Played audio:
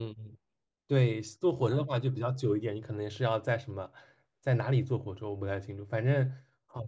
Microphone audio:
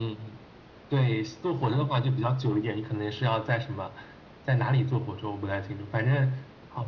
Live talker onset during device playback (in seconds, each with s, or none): none